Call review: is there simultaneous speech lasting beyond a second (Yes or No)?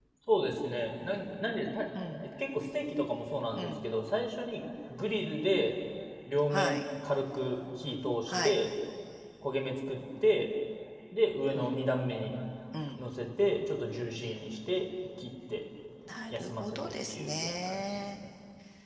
Yes